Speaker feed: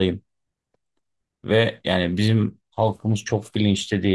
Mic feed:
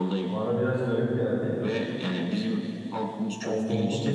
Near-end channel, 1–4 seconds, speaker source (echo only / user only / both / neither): both